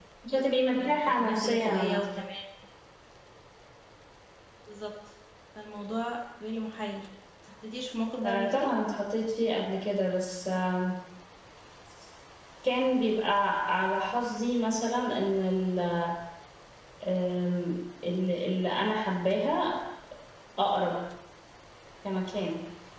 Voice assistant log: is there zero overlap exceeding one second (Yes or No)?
No